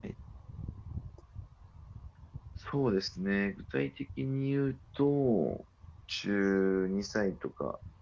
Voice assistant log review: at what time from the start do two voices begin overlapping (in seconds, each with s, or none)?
none